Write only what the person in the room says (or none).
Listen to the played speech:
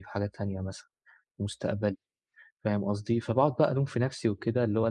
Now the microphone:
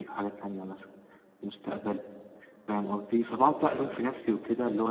امم.